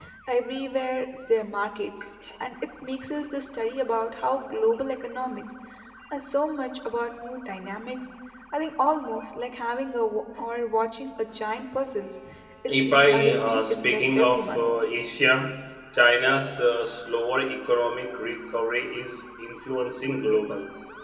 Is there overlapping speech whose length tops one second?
Yes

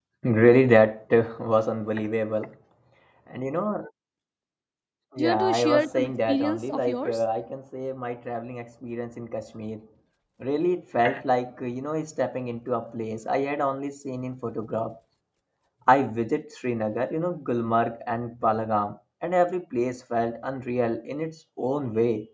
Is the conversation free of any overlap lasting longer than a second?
No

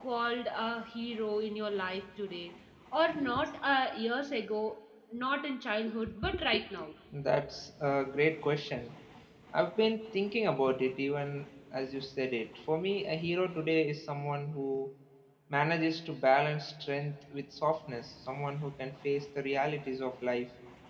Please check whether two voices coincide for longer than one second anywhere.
No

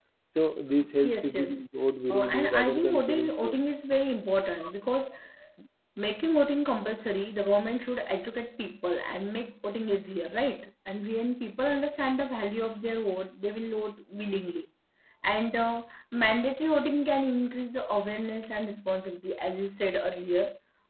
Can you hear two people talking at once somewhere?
Yes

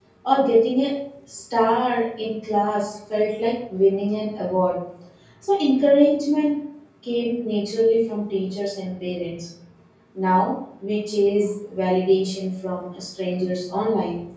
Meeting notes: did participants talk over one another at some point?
No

